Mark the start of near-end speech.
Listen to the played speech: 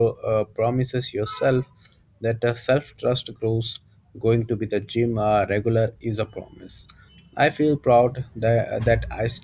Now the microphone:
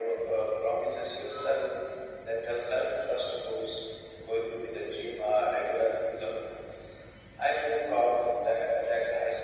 none

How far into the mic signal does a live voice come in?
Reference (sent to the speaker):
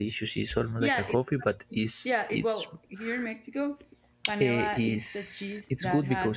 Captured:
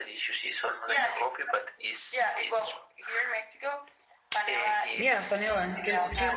5.0 s

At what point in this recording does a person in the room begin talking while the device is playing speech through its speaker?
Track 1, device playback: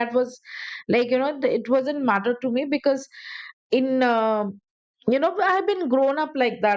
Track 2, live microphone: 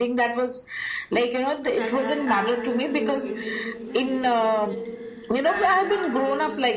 1.7 s

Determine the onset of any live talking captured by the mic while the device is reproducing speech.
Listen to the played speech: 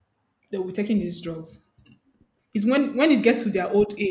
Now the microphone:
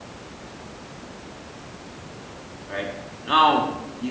2.7 s

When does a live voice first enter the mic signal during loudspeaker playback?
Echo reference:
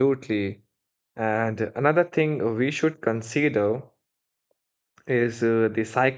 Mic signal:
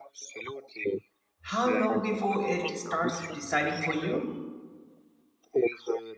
1.5 s

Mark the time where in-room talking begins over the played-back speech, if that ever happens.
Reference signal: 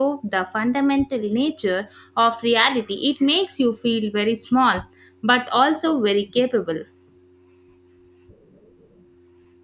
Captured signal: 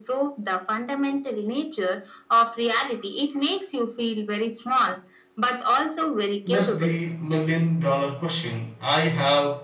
6.4 s

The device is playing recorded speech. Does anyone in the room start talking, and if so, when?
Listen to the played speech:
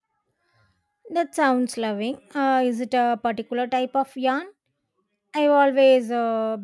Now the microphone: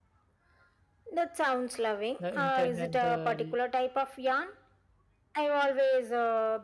2.2 s

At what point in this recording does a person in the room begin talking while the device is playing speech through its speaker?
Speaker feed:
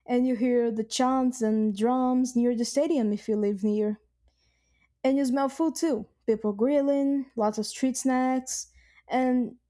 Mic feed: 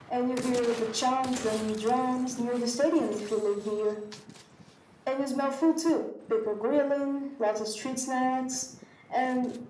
none

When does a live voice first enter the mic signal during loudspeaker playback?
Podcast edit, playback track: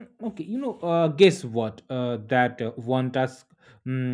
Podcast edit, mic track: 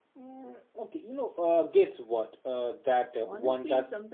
3.2 s

